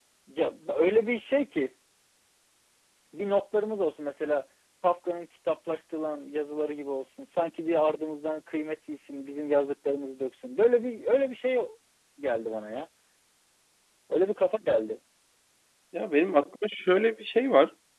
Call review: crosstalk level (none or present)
none